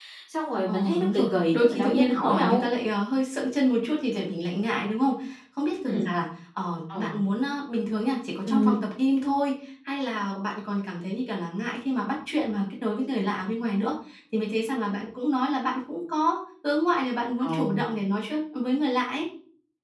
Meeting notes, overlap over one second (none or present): present